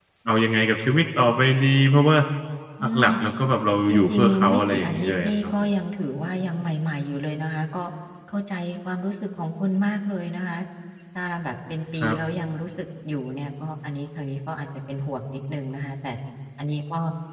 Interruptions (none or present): present